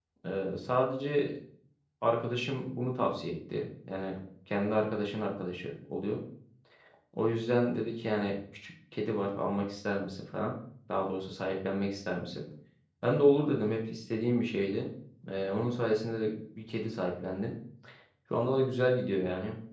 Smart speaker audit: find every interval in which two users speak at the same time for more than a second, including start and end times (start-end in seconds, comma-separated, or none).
none